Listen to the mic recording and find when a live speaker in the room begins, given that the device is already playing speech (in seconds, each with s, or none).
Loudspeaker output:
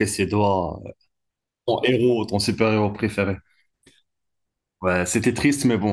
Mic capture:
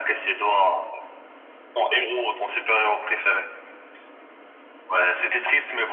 none